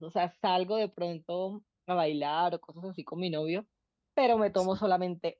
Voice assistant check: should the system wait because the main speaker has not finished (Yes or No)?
Yes